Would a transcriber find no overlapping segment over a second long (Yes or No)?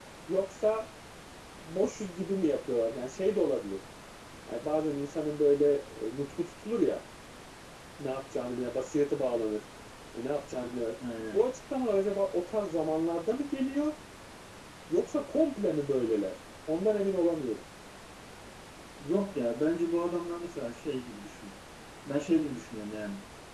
Yes